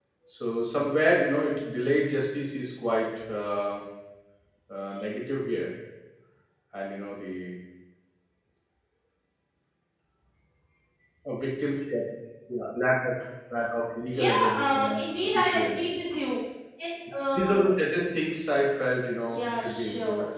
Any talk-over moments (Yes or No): Yes